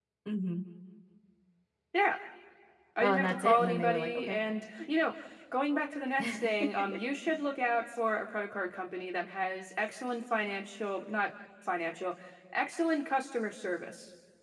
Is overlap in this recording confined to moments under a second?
No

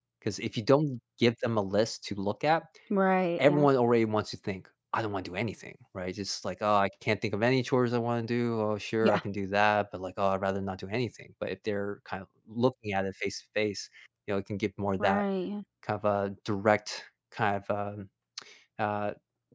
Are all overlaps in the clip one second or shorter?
Yes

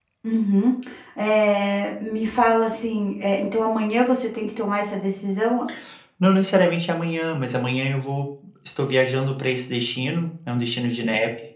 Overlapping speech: No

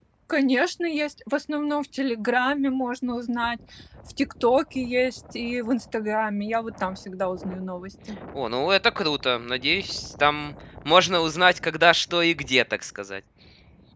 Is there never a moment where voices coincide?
Yes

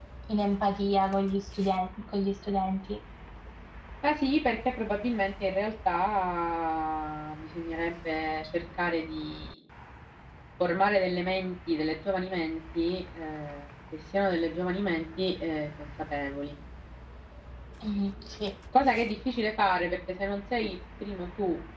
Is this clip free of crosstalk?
Yes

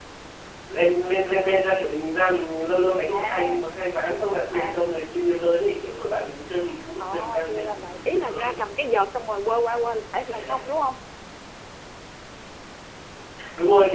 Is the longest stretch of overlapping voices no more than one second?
No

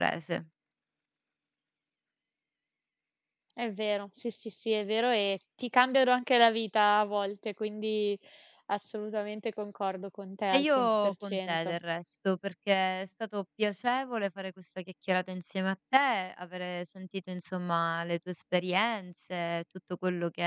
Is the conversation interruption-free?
No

